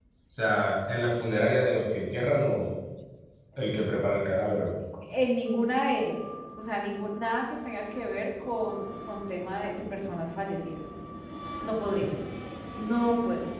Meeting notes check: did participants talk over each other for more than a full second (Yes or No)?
No